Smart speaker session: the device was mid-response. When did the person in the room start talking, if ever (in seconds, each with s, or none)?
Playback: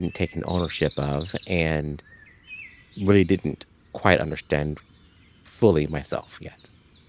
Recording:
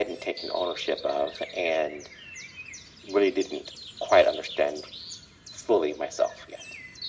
none